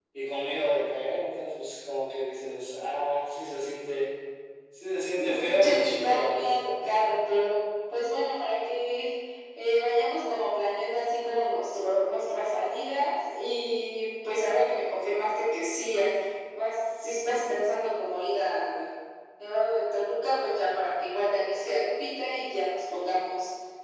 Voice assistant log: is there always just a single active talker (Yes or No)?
No